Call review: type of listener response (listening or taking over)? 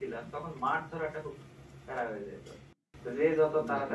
listening